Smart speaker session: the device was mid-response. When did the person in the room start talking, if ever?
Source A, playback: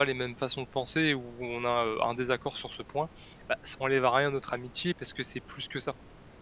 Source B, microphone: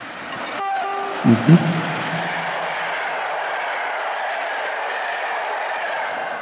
1.2 s

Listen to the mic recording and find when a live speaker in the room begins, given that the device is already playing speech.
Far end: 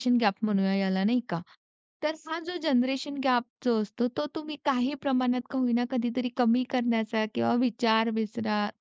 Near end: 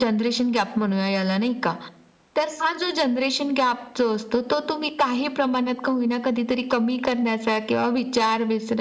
none

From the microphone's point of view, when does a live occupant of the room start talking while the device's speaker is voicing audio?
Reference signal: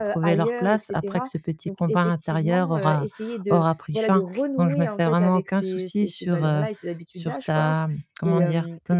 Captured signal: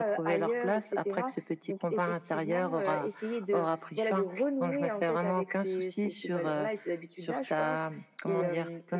none

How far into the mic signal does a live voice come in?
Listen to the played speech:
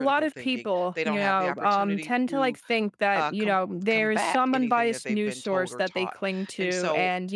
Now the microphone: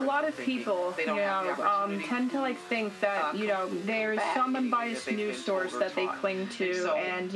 none

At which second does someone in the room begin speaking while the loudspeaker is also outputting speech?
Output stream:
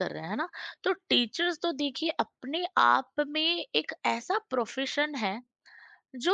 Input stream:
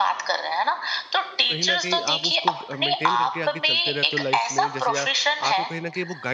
1.5 s

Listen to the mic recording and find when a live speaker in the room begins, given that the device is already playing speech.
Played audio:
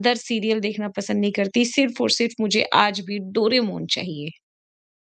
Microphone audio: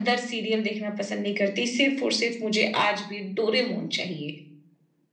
none

